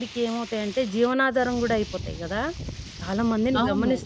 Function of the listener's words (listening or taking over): listening